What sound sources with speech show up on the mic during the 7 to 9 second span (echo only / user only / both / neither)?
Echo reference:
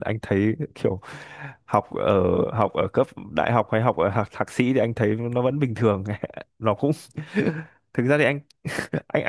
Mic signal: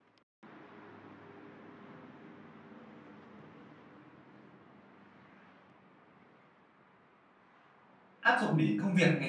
user only